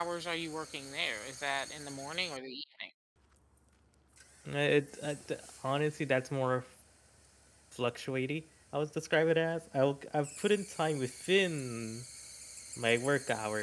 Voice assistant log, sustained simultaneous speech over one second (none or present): none